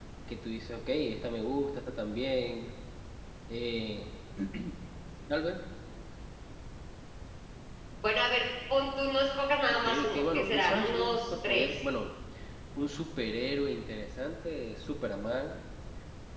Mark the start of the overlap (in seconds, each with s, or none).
9.8 s